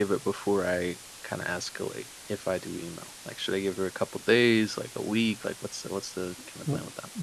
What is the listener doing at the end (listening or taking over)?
taking over